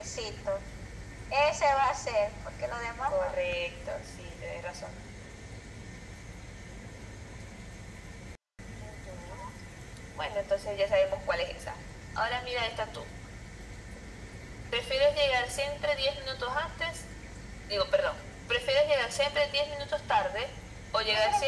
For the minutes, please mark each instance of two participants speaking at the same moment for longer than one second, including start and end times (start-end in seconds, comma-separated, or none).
none